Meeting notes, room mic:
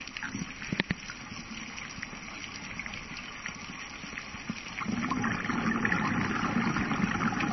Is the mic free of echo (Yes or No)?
Yes